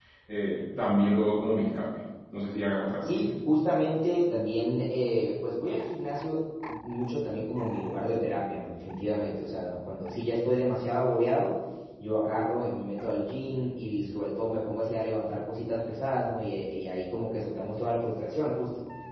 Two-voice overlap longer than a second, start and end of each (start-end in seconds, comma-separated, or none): none